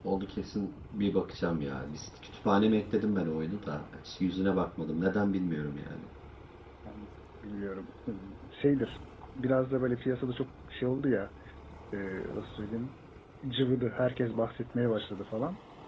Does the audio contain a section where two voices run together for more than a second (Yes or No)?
No